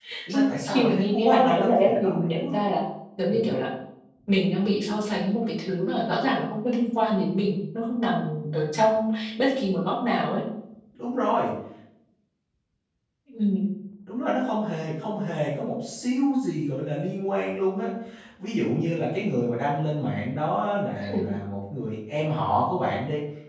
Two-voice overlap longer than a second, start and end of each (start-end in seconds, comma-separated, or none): 0.6-2.6